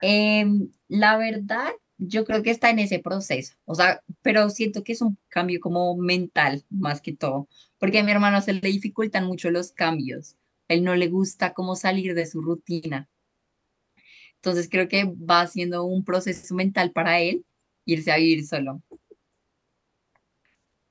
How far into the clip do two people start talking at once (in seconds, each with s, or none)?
none